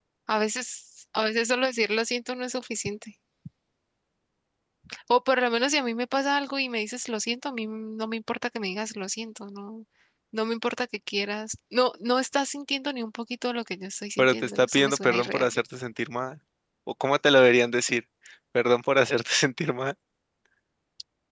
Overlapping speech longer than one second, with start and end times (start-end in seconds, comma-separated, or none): 14.2-15.5